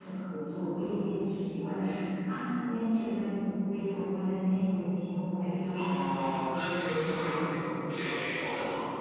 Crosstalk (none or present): present